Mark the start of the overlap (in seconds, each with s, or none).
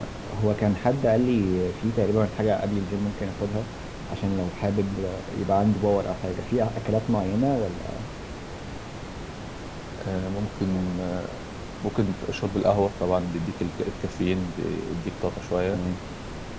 none